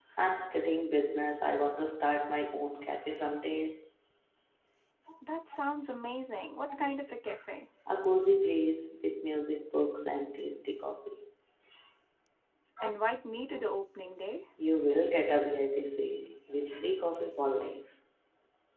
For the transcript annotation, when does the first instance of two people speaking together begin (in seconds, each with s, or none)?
none